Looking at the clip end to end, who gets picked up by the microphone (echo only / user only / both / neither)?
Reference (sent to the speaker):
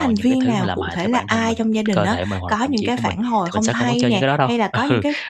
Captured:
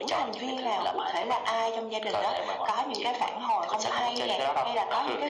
echo only